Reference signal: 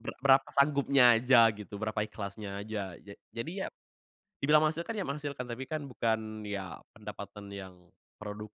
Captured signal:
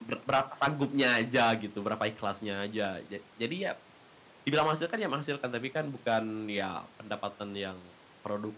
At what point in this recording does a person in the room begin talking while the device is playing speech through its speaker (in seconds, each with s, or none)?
none